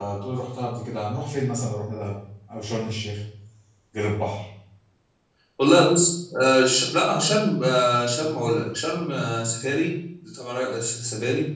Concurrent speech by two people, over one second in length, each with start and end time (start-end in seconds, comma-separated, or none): none